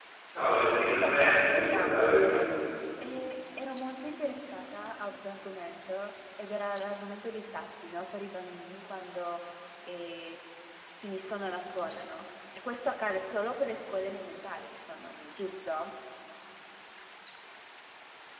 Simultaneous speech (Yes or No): Yes